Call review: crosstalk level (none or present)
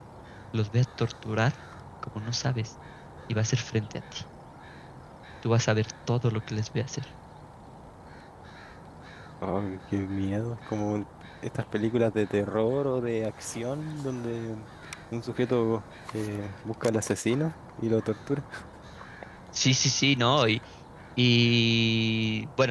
none